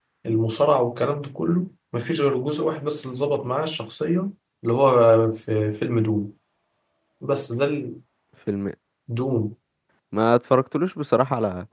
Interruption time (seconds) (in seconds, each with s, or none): none